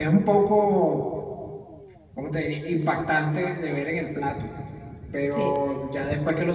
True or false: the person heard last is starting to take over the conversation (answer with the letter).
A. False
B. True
A